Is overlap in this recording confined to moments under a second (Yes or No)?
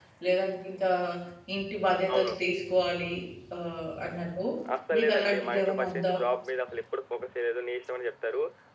No